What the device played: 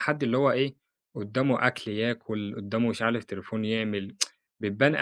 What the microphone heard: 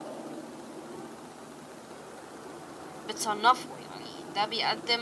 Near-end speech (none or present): present